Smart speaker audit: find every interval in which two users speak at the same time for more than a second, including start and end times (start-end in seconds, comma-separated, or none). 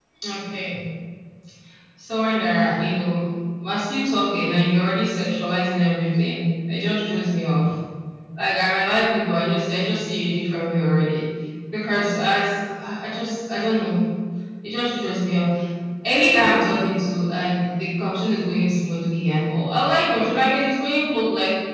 none